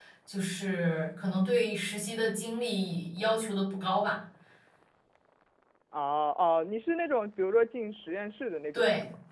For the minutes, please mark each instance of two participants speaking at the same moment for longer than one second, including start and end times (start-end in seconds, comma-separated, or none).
none